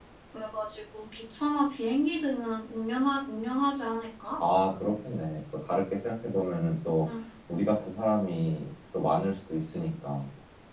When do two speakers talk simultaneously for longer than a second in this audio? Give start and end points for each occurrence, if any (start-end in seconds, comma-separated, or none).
none